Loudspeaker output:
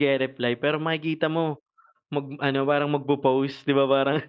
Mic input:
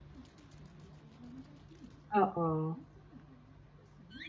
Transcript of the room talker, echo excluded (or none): Oo.